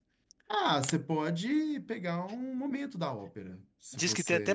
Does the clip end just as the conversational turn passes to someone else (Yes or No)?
Yes